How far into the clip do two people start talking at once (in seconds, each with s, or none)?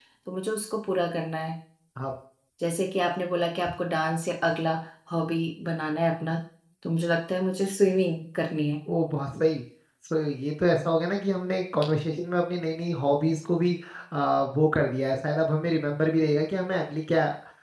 none